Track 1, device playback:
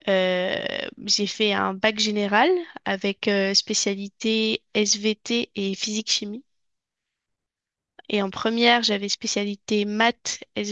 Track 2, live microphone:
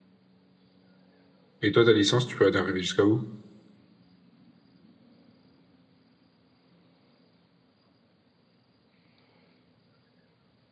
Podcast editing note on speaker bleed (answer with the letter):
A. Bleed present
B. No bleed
B